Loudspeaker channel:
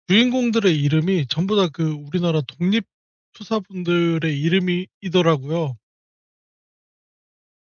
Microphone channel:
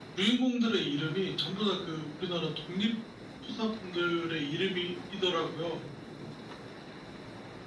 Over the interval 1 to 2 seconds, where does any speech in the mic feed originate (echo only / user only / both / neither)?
echo only